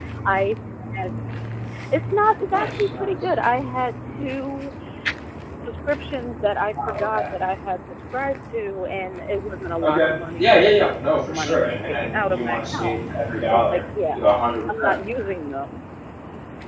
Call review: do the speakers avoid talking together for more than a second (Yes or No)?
No